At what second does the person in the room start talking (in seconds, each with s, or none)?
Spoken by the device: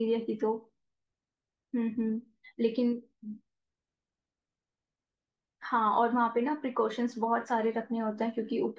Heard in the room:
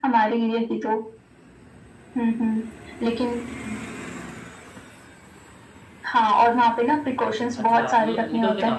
7.6 s